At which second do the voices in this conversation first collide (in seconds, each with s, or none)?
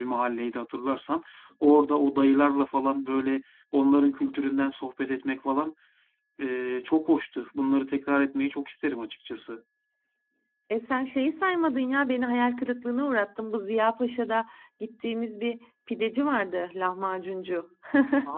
none